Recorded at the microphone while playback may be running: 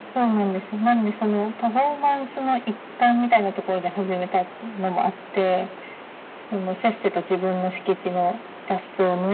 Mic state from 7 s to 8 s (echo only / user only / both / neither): echo only